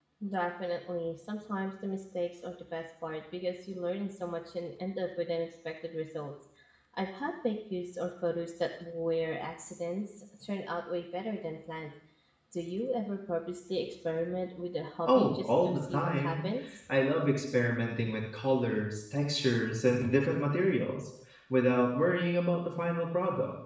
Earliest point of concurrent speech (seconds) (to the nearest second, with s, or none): 15 s